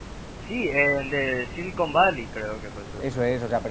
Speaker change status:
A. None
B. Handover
B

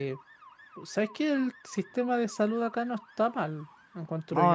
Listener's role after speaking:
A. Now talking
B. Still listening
A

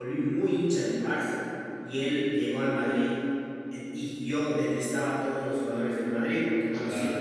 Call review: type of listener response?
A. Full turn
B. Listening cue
B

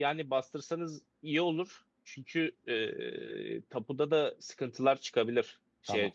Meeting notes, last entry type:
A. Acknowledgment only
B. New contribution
A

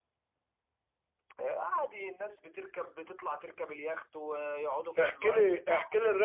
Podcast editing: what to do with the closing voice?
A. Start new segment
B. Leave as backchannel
A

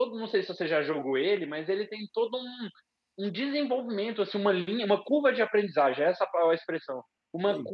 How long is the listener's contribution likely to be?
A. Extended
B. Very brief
B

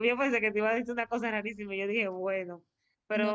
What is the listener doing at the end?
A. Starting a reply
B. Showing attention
B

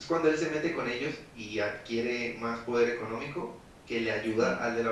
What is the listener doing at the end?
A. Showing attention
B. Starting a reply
A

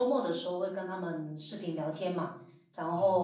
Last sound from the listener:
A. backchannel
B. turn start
A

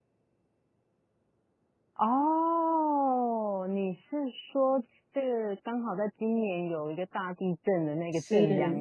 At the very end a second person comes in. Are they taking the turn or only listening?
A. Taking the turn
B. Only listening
A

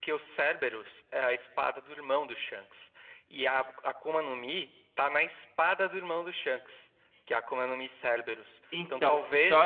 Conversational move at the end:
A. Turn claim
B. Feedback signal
B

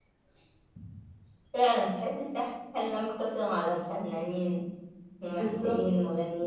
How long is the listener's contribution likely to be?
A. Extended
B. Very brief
A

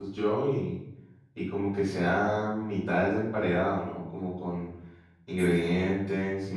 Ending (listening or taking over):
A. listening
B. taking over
A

